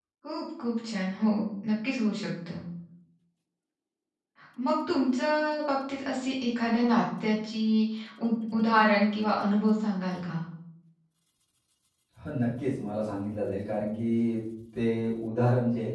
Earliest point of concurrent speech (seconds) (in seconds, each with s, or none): none